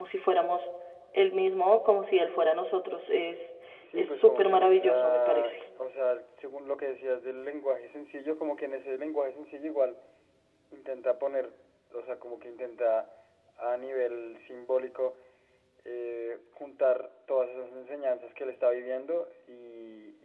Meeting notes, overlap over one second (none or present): present